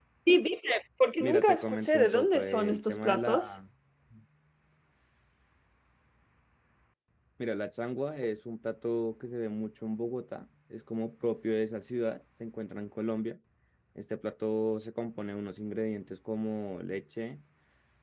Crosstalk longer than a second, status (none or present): present